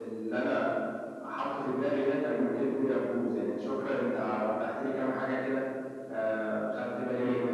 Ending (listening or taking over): taking over